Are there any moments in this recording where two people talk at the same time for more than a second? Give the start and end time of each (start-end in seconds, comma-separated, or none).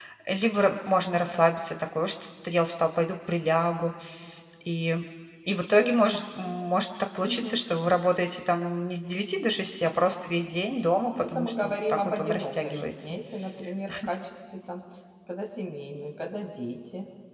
11.2-13.2